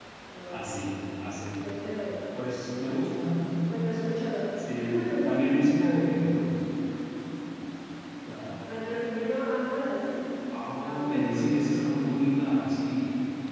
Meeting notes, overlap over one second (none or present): present